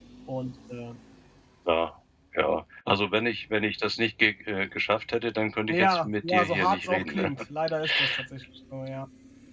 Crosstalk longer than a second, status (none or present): present